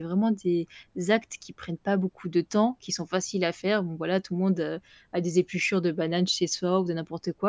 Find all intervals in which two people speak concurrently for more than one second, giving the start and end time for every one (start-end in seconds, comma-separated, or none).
none